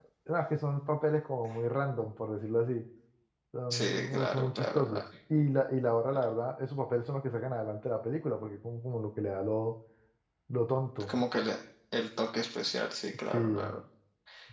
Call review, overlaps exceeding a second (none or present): present